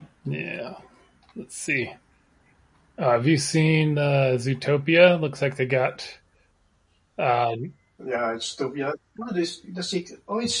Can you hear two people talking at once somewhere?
No

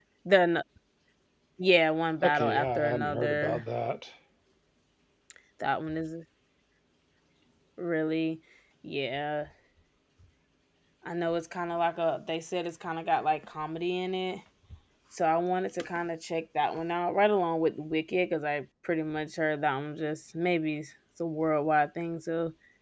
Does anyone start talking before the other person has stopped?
Yes, from 2.2 s

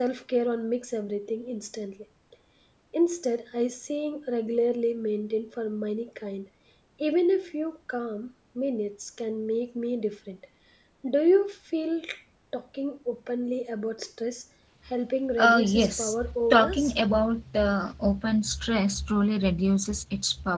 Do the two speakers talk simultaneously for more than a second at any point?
Yes, from 15.3 s

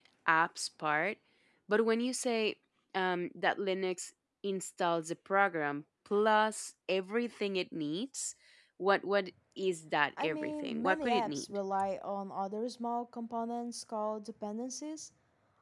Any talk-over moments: Yes, from 10.2 s

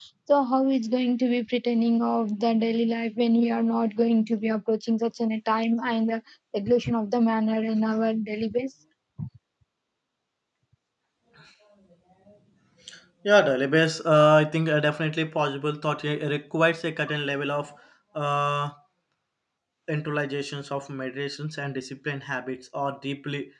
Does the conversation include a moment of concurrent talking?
No

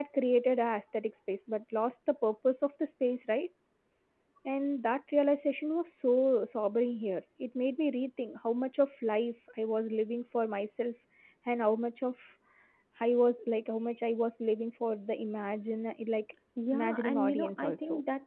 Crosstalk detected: Yes, from 16.6 s

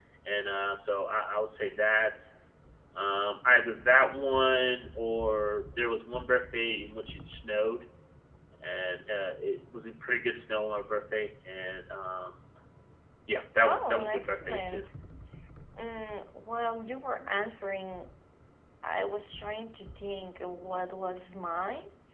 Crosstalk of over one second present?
Yes, from 13.6 s

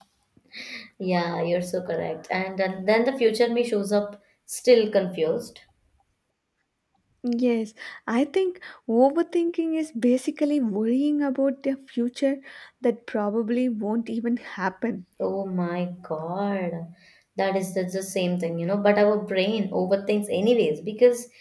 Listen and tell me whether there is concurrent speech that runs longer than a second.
No

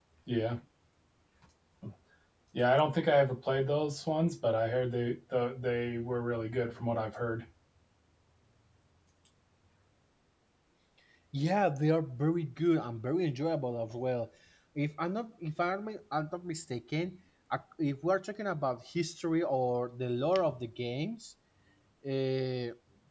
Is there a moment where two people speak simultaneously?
No

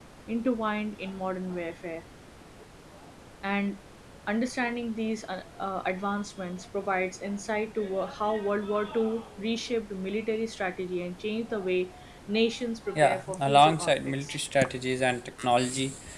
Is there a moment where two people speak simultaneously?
Yes, from 12.9 s

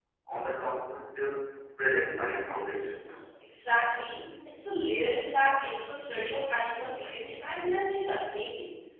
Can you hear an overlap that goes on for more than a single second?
No

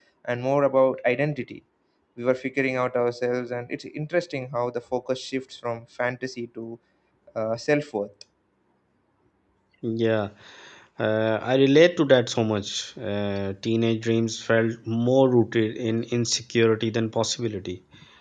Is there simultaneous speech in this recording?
No

